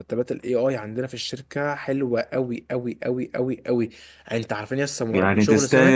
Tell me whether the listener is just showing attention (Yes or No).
No